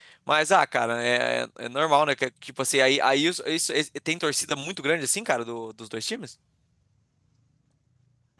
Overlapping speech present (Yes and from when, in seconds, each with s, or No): No